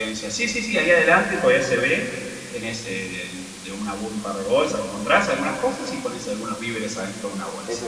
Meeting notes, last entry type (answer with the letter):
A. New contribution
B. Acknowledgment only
A